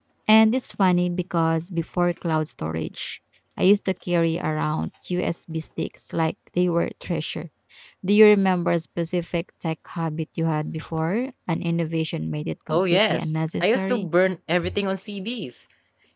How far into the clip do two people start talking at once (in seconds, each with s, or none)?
12.7 s